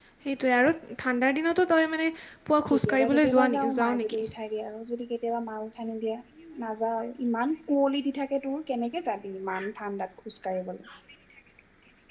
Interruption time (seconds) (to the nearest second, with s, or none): 3 s